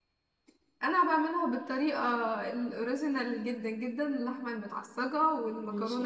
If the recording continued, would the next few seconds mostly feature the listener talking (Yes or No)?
No